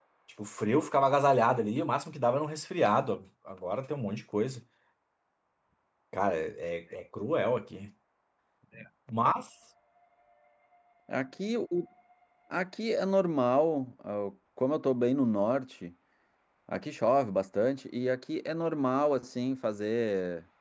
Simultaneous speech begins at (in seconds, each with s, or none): none